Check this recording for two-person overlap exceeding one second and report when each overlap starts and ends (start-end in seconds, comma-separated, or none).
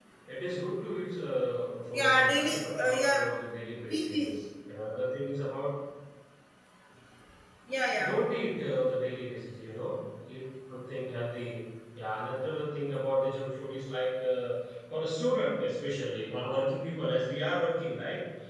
1.9-3.2